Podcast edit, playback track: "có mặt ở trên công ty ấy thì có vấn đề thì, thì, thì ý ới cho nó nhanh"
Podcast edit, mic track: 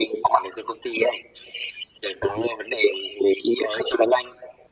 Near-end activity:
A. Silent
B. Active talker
A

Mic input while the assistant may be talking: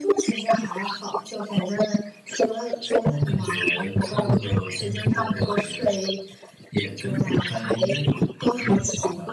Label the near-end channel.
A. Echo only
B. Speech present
A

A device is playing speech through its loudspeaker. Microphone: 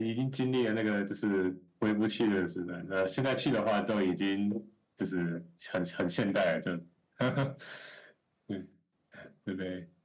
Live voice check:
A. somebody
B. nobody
B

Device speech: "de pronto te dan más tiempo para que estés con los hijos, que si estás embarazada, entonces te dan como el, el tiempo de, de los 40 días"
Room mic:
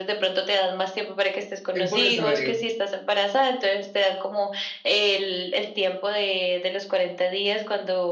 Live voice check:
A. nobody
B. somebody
B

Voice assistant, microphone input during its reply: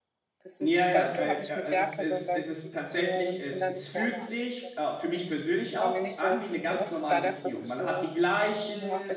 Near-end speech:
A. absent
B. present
B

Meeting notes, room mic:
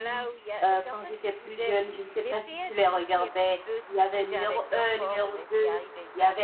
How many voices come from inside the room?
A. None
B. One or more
B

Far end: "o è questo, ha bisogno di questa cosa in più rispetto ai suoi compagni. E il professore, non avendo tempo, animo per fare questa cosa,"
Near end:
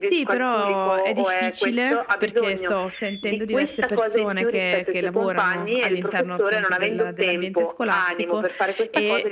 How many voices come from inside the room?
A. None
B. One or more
B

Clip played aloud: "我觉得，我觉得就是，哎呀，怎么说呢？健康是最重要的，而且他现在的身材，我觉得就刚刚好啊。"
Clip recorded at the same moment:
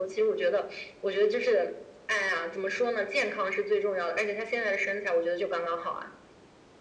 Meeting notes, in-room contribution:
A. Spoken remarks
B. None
B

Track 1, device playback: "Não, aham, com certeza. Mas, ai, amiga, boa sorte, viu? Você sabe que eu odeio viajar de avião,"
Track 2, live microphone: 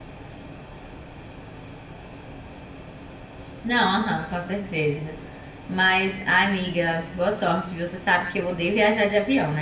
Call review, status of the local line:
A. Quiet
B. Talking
A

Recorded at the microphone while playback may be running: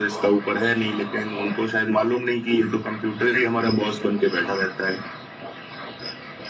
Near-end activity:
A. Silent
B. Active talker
A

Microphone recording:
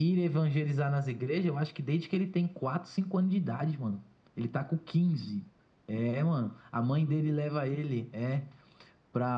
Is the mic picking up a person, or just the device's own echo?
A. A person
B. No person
B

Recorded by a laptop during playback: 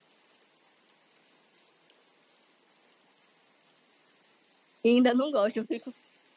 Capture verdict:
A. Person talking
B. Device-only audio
A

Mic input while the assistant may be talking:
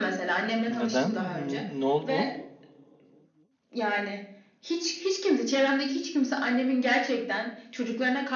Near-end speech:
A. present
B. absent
A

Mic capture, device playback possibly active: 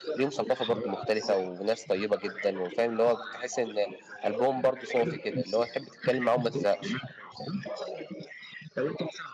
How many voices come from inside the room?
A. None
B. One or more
B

